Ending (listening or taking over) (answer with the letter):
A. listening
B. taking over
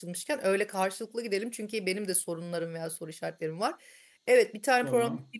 A